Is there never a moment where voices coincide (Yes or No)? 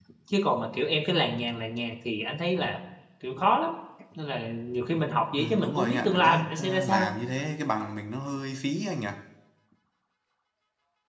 No